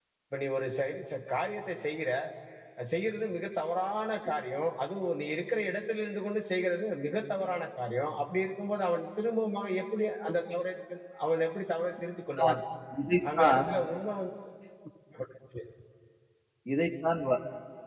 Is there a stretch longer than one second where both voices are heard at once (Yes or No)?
No